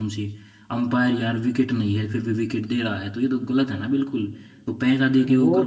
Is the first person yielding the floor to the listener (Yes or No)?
Yes